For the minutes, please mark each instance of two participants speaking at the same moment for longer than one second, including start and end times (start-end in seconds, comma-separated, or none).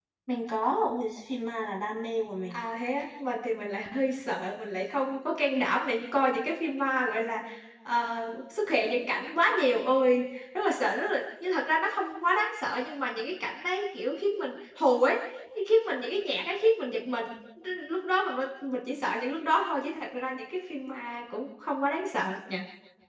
none